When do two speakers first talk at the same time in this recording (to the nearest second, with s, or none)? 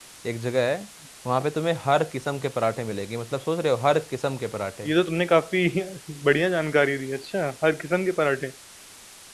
none